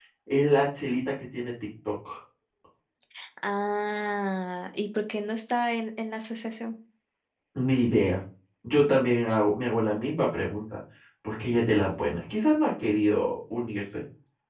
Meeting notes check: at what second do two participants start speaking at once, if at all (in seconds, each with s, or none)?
none